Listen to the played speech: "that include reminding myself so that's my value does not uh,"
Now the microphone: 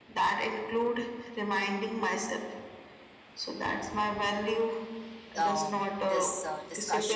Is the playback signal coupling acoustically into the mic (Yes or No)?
Yes